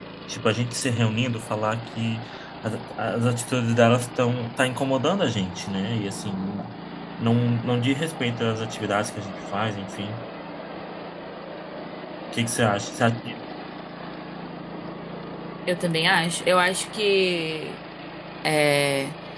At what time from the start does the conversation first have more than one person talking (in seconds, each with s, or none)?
none